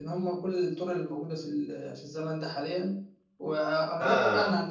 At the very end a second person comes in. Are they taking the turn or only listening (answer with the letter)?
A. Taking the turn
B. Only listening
B